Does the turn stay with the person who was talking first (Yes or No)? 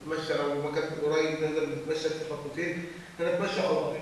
Yes